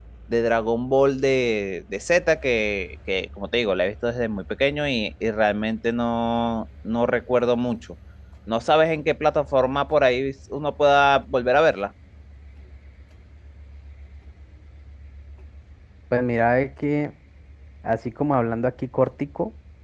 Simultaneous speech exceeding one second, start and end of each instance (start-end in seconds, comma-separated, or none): none